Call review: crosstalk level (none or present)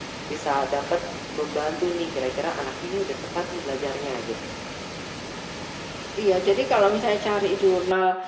none